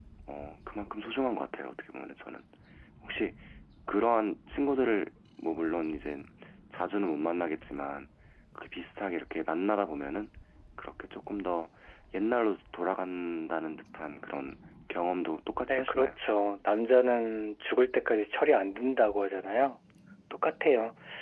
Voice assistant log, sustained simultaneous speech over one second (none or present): none